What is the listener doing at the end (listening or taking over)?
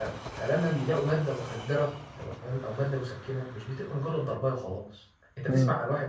listening